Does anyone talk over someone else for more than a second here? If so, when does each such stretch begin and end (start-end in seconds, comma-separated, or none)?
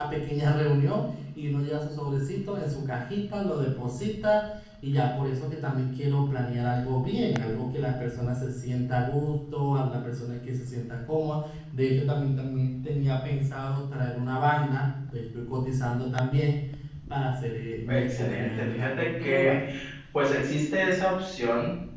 17.9-19.6